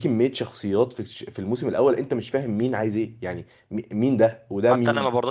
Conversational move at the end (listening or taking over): taking over